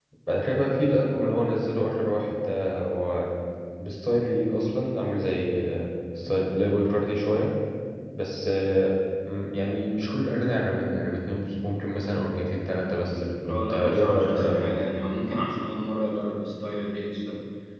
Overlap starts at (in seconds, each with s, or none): 13.5 s